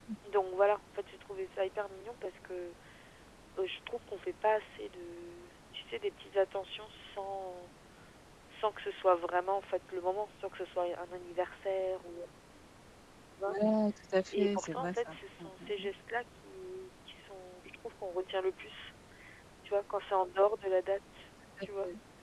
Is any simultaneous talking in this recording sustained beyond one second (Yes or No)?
Yes